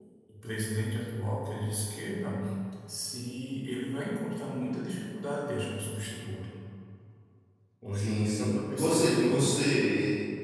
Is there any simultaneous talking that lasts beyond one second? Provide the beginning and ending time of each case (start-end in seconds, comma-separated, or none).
7.9-9.5